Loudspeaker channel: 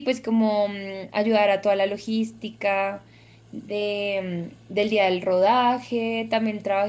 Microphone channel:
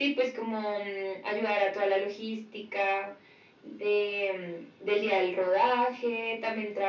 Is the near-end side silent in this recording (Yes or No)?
Yes